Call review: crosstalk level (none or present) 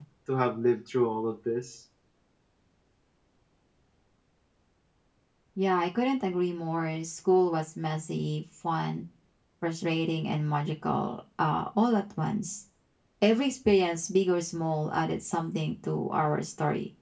none